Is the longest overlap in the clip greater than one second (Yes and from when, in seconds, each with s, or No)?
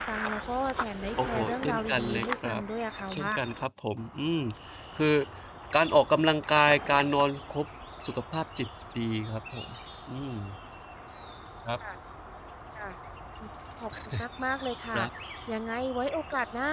Yes, from 1.2 s